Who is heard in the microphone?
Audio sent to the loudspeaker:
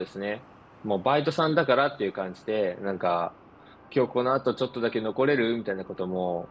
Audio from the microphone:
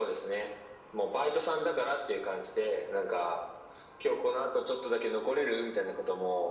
echo only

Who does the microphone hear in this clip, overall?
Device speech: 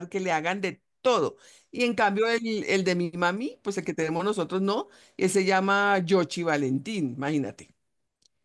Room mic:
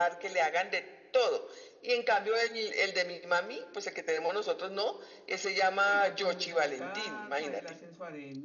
both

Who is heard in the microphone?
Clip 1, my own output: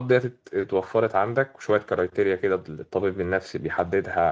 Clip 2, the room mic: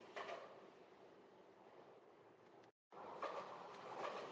neither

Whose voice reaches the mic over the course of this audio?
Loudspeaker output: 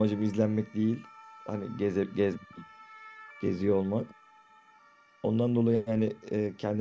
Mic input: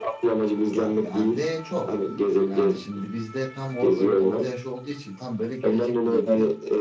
both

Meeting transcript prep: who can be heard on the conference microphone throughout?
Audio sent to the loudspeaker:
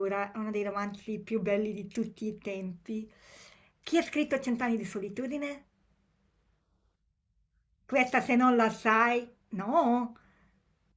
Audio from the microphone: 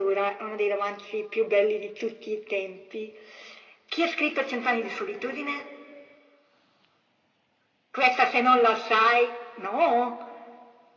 echo only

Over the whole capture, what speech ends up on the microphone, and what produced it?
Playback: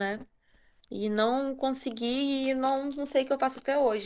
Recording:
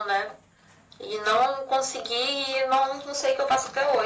echo only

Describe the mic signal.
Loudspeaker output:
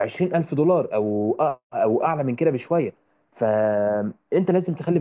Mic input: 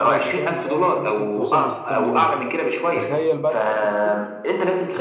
both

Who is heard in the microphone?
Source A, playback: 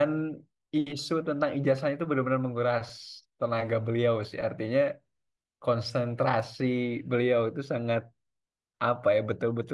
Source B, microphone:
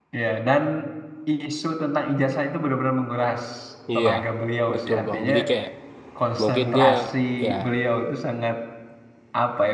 both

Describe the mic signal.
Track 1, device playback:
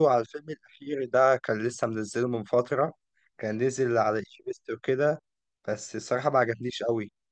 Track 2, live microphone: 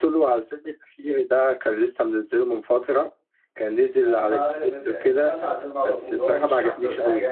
both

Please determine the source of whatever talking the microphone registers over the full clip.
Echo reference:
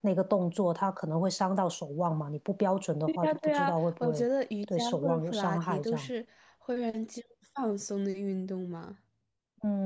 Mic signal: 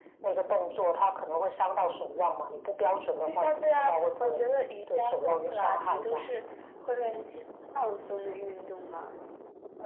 echo only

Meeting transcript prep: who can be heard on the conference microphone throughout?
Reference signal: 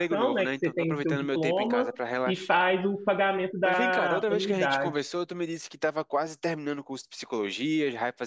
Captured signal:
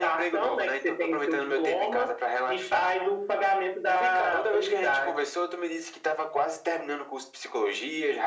echo only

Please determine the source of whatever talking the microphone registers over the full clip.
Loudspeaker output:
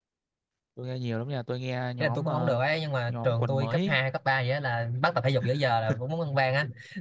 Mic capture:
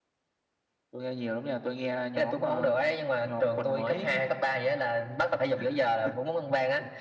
echo only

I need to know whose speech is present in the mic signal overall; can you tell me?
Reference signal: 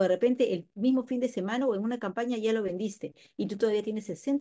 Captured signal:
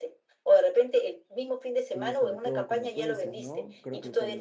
both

